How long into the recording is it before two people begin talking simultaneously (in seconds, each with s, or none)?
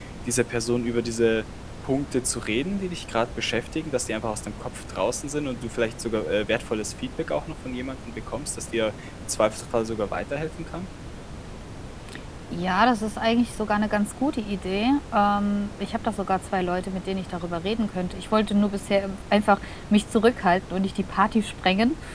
none